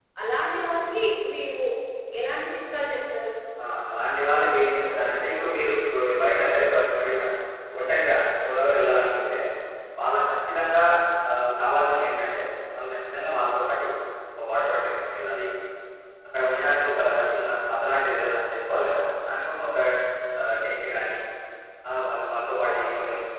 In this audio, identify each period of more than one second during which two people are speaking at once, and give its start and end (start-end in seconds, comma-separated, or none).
none